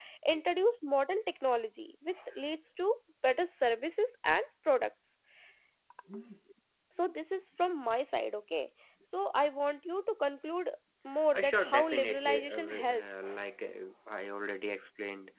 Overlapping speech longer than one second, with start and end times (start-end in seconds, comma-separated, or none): 11.3-13.3